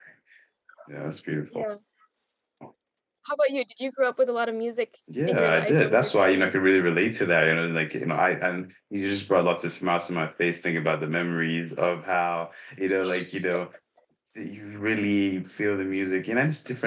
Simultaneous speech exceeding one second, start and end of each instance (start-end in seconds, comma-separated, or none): 5.3-6.5